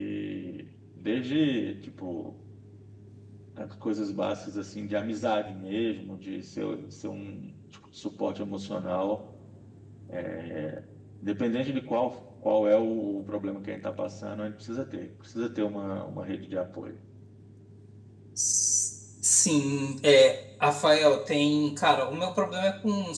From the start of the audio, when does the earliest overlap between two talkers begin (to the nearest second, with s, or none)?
none